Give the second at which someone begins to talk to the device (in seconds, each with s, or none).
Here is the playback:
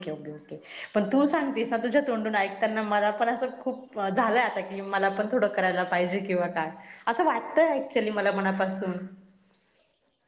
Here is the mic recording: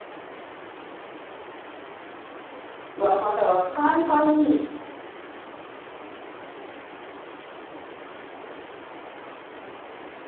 2.9 s